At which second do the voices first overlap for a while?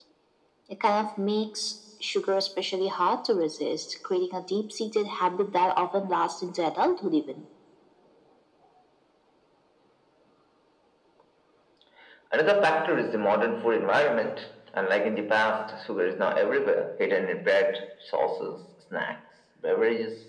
none

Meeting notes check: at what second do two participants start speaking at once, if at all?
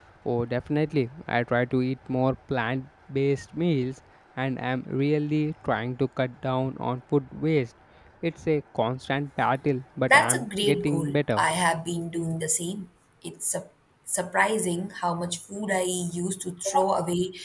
10.1 s

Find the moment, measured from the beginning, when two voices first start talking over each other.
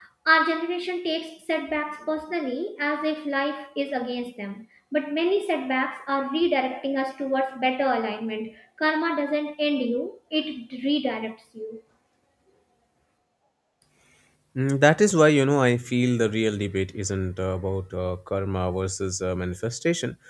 none

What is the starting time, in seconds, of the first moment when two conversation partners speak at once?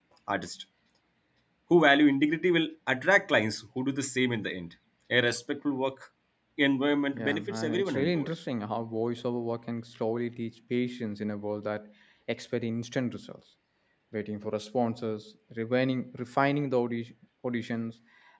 7.1 s

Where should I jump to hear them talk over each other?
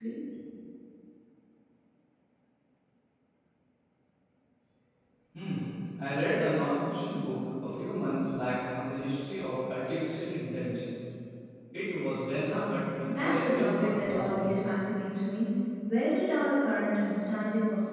12.5 s

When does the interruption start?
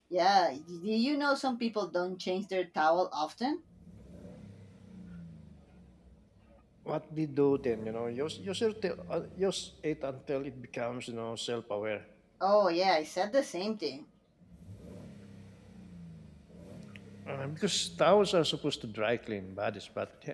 none

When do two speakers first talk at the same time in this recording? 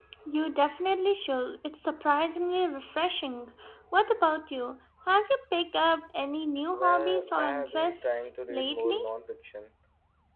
6.7 s

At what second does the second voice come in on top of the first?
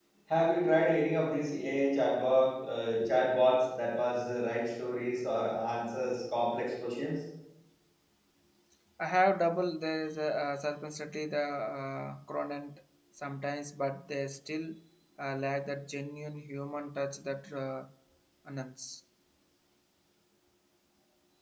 none

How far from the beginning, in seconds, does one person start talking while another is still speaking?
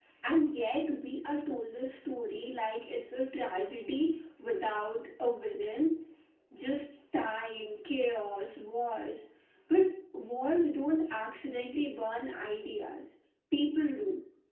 none

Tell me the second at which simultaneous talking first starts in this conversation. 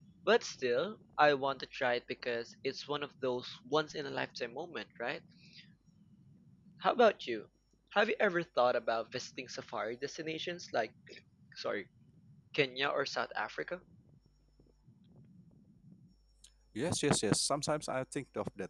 none

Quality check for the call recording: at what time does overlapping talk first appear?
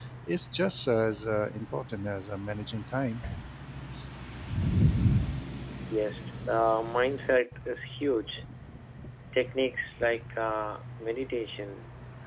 none

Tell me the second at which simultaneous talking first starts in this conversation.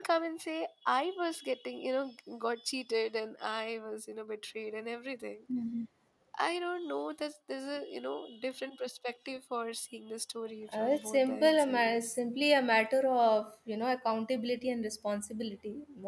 10.7 s

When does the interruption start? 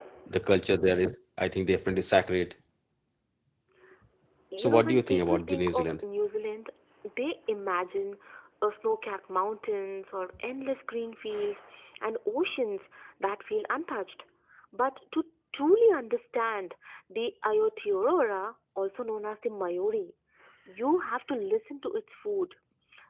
4.6 s

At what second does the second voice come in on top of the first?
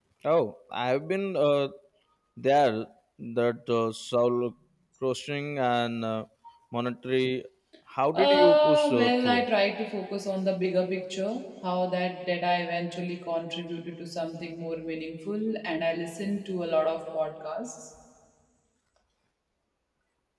8.1 s

